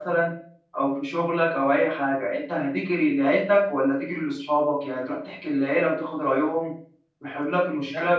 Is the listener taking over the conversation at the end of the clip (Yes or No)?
No